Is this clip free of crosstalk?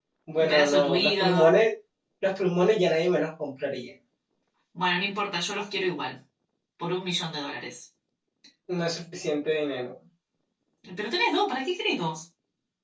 No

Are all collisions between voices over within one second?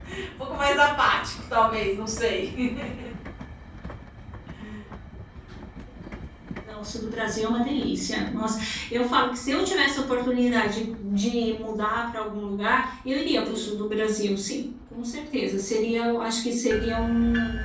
Yes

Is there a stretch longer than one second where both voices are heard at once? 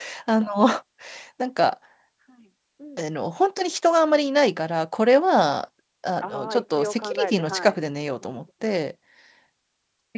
Yes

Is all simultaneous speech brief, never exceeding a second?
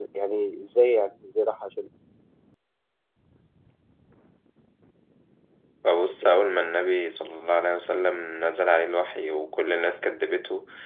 Yes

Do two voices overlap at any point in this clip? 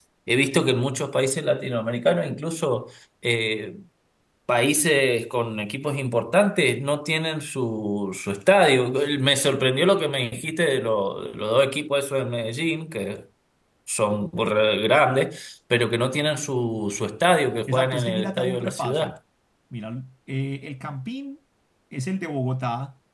Yes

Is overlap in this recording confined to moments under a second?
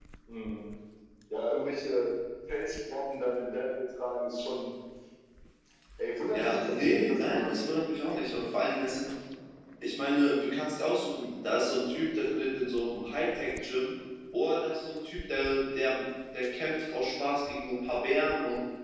No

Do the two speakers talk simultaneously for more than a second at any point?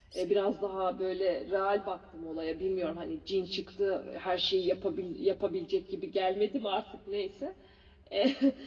No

